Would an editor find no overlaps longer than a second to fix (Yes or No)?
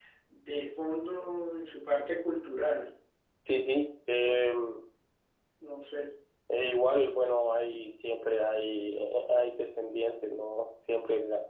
Yes